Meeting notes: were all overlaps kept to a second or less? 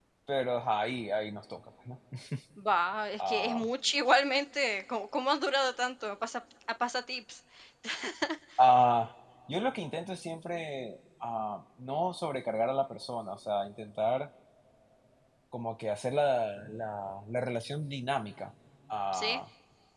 Yes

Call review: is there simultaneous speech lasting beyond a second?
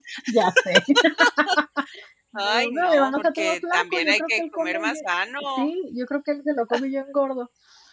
Yes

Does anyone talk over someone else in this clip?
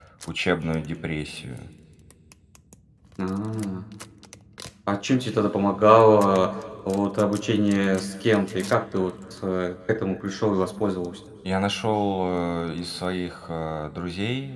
No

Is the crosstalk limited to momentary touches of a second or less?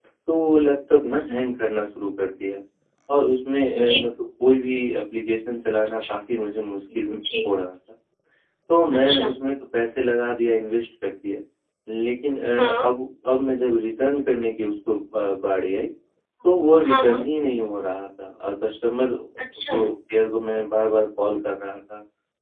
Yes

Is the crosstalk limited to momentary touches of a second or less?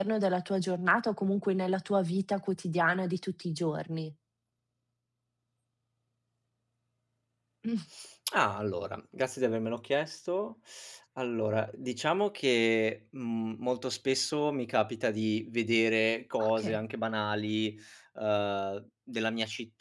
Yes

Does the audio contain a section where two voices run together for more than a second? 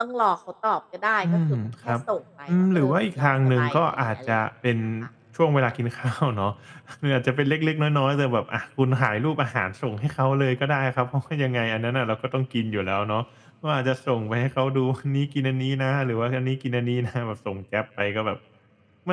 Yes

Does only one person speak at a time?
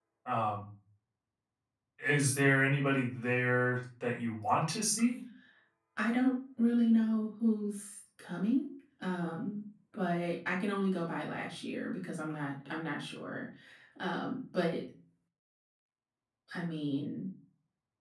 Yes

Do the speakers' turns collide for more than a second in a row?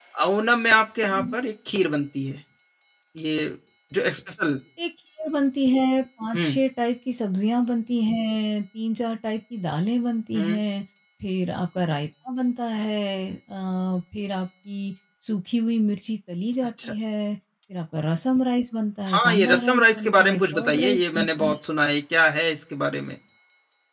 Yes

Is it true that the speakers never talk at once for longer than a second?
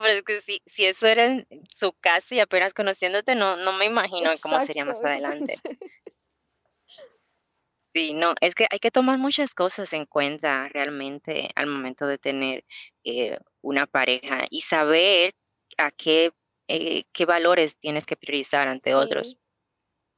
No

